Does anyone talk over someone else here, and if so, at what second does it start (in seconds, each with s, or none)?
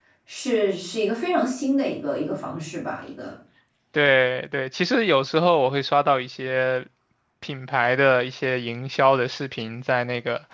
none